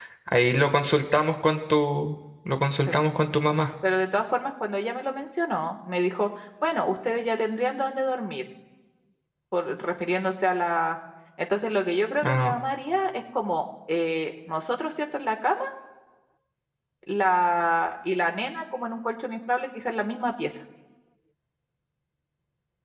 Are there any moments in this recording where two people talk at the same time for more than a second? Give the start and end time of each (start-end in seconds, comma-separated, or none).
none